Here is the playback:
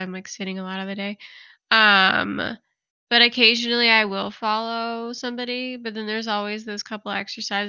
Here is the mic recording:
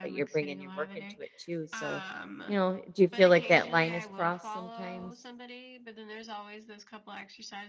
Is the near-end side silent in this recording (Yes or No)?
No